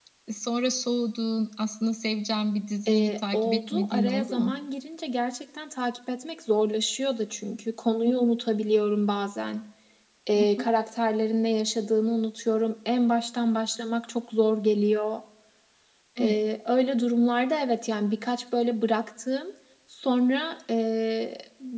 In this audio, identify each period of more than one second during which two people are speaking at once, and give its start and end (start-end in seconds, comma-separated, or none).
2.9-4.6